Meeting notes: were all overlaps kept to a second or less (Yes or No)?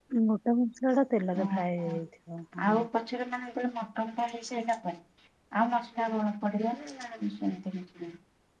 Yes